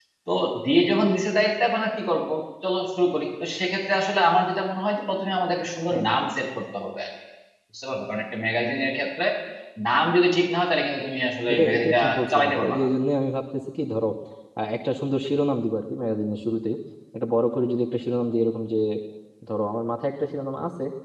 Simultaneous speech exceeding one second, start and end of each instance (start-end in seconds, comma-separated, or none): 11.5-12.9